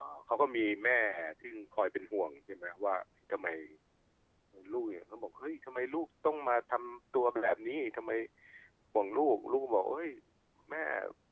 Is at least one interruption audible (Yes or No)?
No